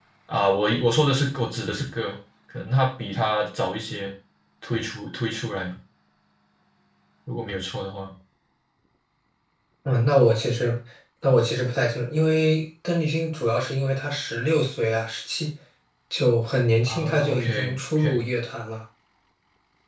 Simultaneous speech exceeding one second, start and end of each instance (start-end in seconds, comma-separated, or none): 16.9-18.2